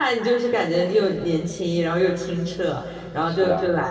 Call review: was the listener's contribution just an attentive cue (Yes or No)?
Yes